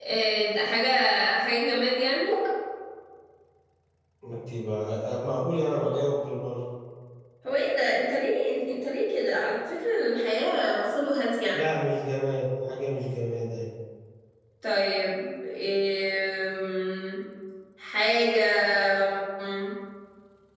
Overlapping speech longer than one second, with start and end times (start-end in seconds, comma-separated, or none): none